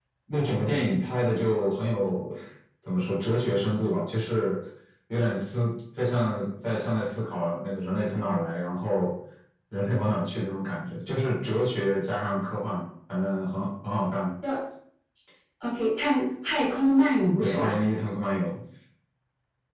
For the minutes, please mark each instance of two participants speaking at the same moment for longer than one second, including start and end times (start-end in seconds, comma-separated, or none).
none